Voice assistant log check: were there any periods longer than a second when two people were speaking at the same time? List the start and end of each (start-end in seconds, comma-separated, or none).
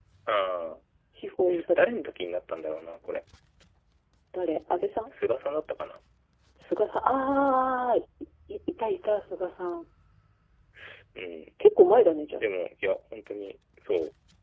none